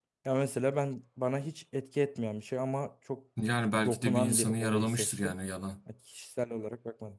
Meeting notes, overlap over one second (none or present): present